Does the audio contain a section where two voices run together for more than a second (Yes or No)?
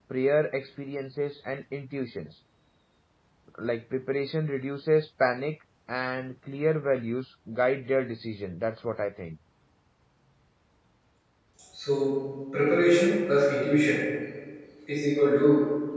No